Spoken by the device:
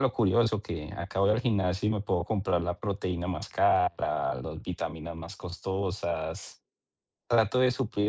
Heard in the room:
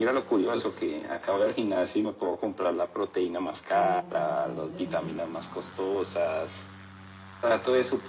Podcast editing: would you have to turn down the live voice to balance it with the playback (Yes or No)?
No